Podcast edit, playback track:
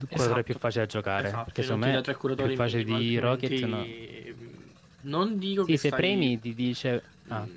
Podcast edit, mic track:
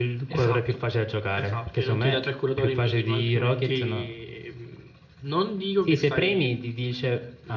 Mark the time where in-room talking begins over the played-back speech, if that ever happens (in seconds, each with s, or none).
none